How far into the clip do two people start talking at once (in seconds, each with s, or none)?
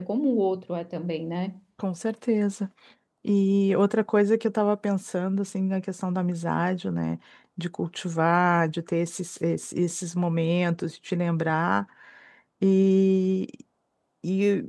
none